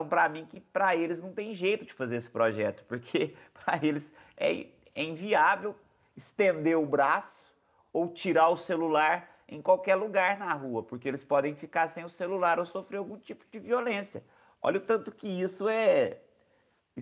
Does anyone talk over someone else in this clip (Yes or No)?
No